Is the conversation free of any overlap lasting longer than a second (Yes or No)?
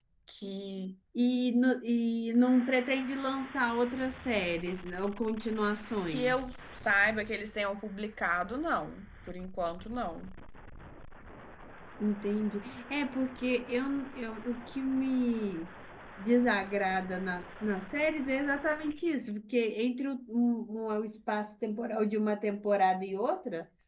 Yes